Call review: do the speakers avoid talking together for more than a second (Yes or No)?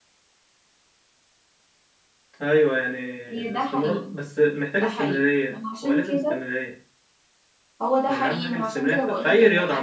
No